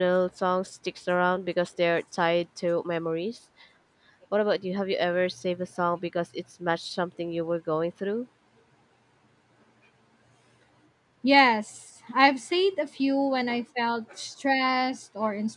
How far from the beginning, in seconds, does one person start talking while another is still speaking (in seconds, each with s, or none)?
none